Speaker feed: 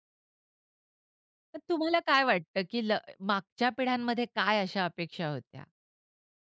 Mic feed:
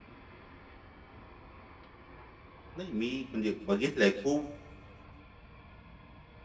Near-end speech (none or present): present